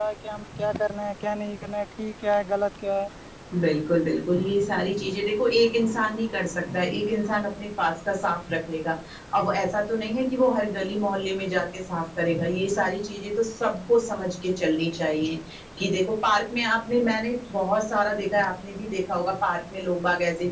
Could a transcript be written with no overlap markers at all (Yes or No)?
Yes